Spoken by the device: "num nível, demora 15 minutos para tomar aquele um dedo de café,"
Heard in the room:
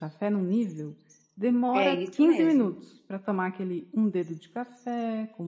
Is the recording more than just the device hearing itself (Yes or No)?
Yes